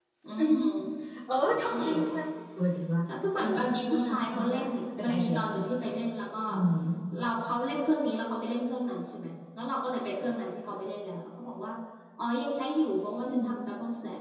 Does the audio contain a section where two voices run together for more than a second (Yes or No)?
Yes